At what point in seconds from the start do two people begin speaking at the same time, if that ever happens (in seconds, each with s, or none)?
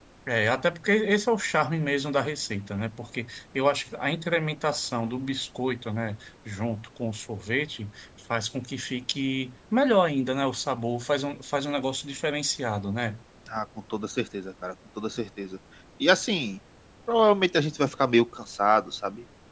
none